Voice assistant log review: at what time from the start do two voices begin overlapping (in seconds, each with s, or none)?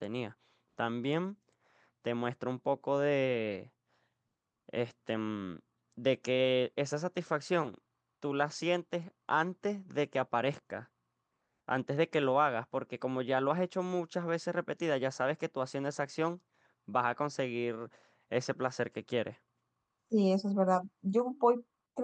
none